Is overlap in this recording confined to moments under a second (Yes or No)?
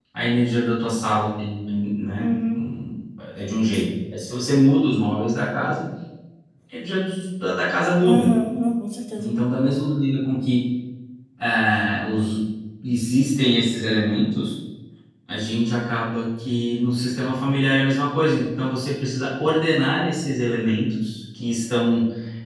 Yes